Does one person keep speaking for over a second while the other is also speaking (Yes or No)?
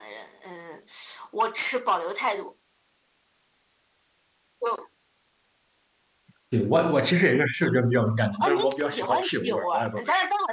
Yes